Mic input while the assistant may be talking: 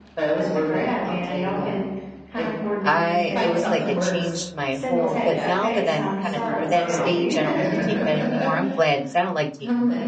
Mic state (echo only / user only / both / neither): both